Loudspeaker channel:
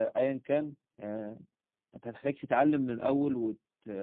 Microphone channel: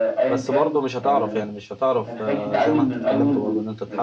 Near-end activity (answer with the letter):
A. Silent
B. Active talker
B